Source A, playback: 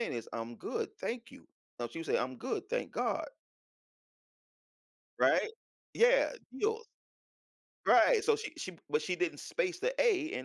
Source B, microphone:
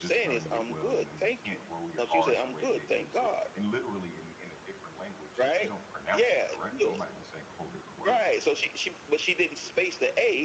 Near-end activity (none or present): present